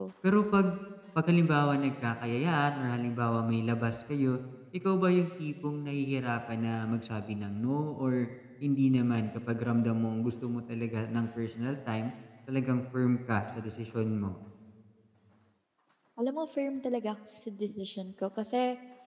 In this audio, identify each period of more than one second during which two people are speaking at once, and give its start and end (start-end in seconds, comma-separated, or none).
none